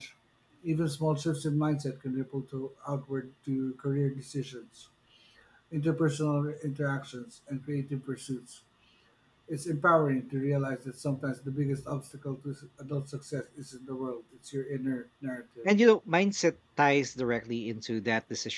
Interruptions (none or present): none